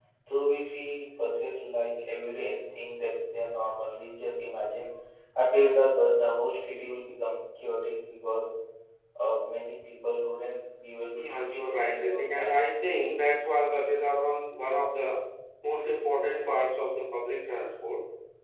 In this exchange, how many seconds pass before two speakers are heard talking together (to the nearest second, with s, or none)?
11 s